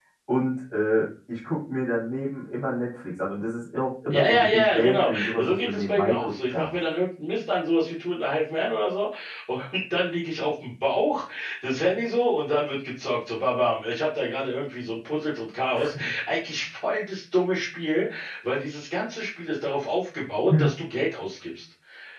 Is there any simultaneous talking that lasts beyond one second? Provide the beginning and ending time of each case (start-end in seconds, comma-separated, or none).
4.1-6.7